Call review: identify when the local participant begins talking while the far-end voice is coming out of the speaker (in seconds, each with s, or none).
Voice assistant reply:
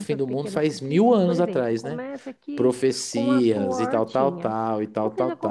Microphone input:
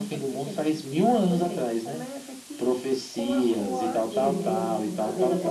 4.1 s